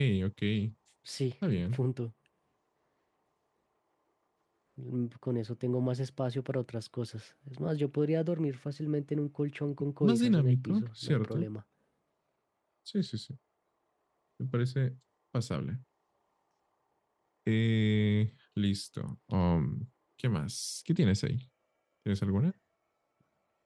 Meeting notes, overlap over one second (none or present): present